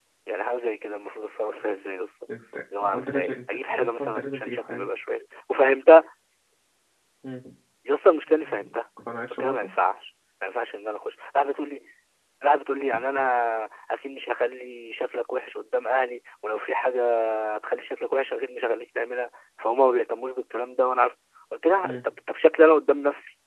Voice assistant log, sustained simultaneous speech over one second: present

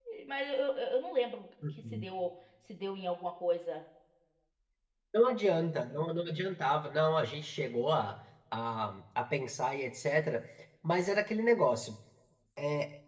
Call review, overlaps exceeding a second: none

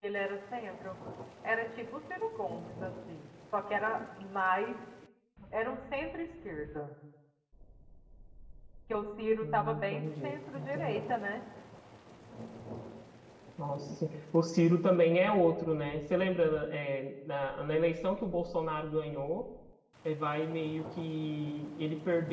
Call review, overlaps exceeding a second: present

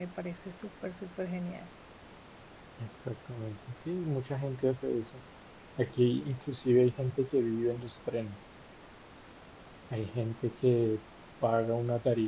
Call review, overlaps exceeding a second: none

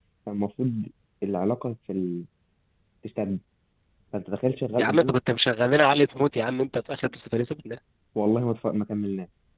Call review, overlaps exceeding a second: none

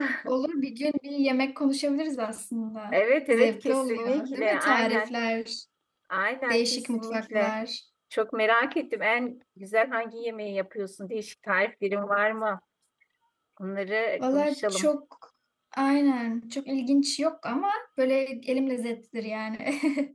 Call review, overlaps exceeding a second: present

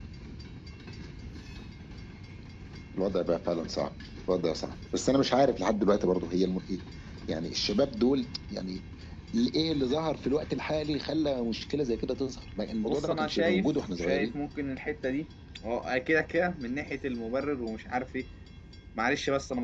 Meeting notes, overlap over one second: present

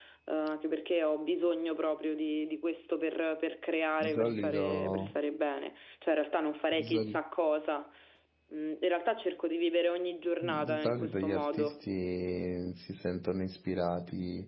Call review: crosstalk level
present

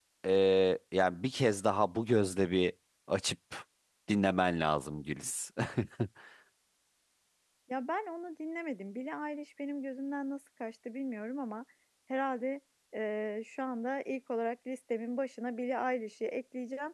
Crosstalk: none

